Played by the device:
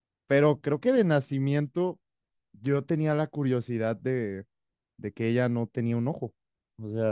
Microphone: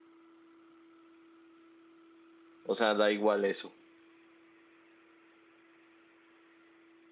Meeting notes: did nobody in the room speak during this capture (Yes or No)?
No